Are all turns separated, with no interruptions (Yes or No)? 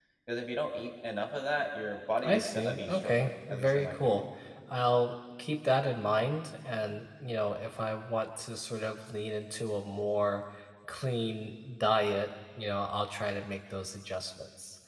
No